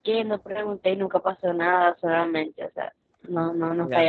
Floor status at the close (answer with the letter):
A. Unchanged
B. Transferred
B